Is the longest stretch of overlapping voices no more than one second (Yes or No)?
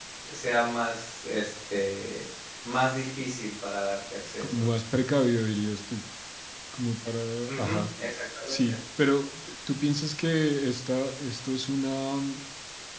Yes